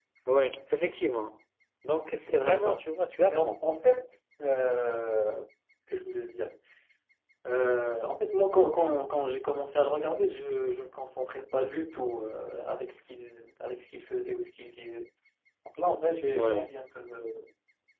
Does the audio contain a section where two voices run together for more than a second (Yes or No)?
No